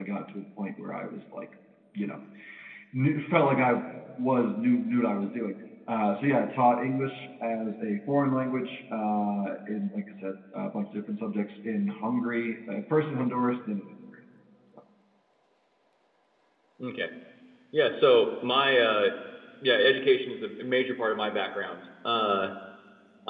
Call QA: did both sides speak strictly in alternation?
Yes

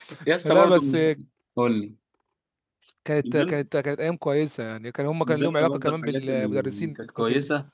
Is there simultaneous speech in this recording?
Yes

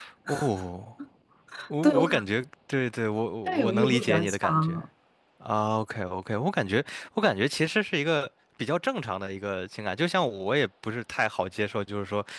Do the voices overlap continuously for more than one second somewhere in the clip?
Yes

